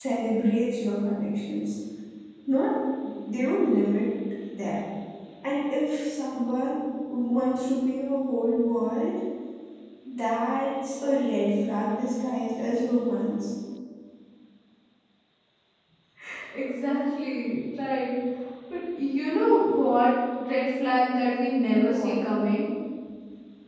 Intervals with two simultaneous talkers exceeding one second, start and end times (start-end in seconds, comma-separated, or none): none